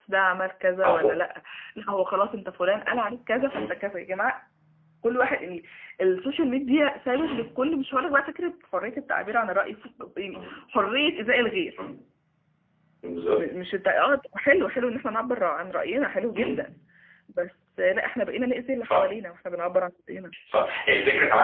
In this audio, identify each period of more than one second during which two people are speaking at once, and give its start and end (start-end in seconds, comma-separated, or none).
none